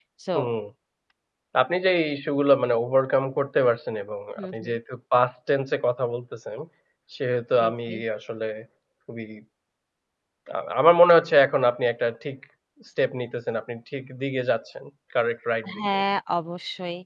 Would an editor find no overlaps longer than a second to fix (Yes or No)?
Yes